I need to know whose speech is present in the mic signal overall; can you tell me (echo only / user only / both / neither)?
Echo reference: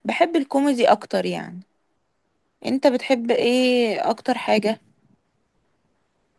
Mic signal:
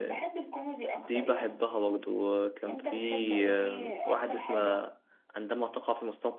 both